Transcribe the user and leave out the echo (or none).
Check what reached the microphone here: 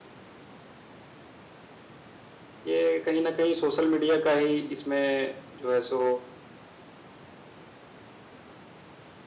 ये कहीं न कहीं सोशल मीडिया का ही इसमें जो है सो